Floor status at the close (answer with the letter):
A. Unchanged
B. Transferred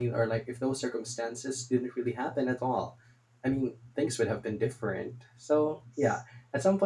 A